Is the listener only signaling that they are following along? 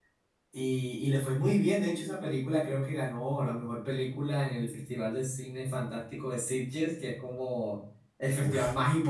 Yes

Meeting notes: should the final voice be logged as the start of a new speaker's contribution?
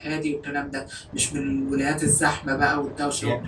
Yes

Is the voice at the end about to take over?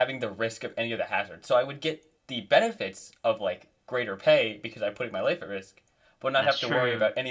No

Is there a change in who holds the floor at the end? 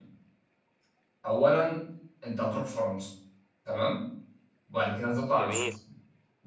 No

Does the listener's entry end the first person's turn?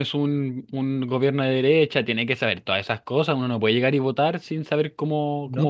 Yes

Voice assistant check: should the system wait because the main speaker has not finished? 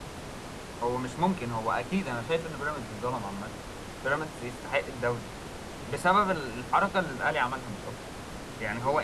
Yes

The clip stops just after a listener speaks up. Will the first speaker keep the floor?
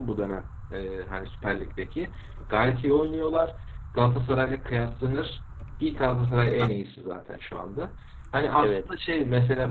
Yes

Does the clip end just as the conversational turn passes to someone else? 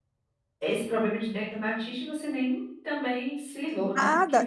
Yes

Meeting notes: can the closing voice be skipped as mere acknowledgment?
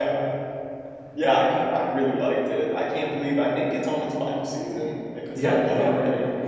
No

